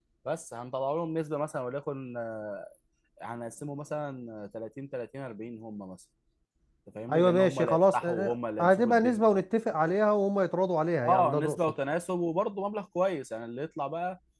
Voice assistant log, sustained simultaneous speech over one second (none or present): present